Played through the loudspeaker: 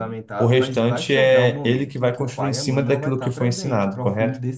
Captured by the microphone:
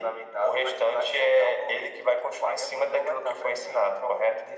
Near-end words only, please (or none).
none